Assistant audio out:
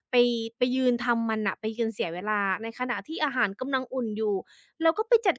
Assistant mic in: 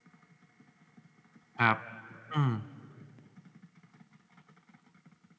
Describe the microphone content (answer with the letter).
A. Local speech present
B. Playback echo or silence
A